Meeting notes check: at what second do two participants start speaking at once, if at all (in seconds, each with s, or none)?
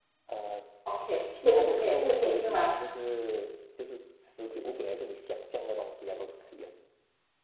1.4 s